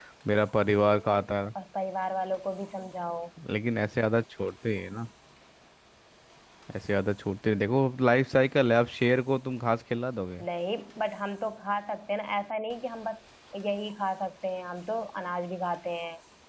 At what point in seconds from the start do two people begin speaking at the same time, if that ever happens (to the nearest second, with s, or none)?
none